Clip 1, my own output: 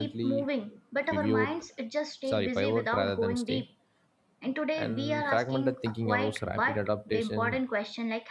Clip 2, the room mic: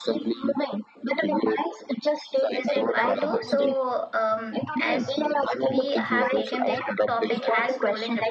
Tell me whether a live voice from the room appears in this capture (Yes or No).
Yes